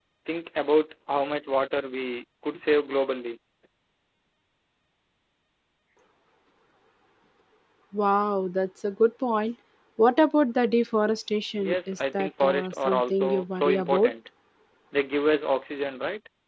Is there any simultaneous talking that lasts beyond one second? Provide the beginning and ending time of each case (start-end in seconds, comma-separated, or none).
11.6-14.1